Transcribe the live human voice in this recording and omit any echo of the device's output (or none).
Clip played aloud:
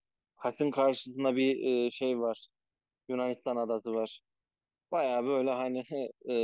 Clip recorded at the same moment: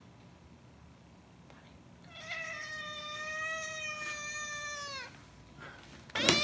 none